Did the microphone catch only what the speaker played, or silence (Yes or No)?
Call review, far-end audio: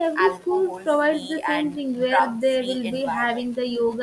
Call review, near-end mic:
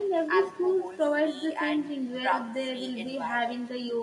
Yes